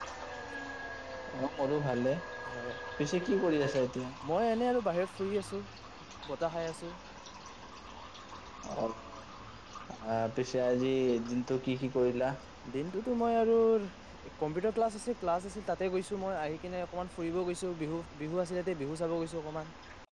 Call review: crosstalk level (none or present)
none